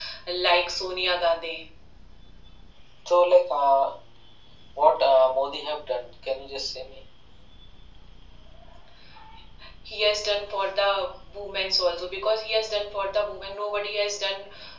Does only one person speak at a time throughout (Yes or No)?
Yes